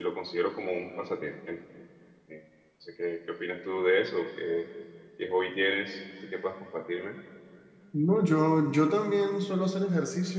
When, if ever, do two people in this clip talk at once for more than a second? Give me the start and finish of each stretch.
none

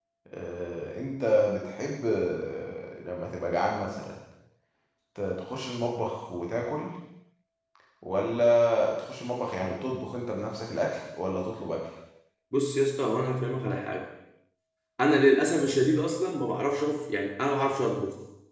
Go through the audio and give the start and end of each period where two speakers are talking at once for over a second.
none

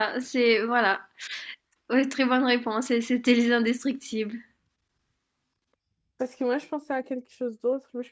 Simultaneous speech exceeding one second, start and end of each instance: none

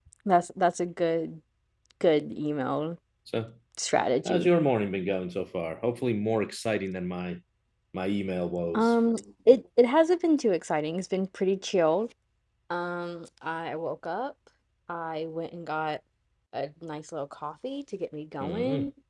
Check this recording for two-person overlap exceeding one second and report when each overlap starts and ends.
none

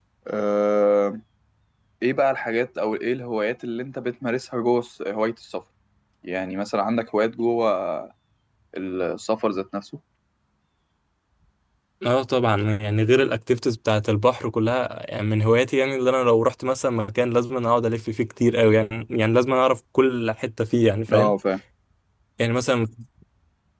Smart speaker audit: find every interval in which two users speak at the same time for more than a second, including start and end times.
none

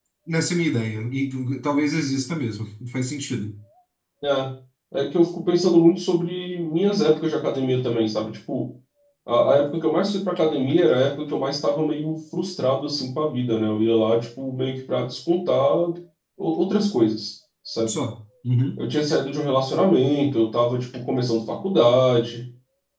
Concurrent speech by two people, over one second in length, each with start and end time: none

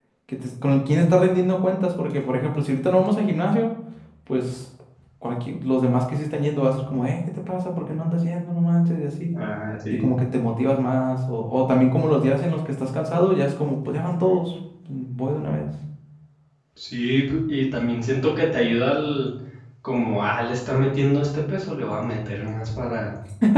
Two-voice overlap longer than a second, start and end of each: none

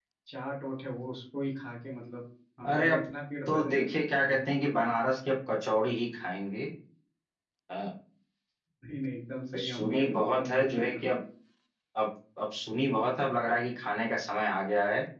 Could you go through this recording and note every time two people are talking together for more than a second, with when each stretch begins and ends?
9.6-11.1

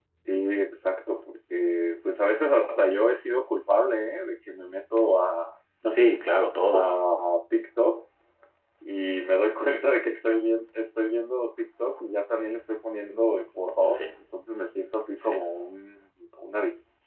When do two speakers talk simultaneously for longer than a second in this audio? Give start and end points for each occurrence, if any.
none

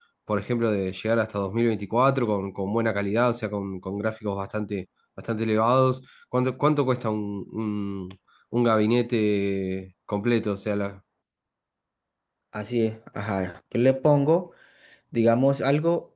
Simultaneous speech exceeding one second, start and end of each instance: none

